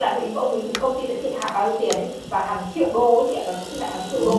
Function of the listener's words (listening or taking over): taking over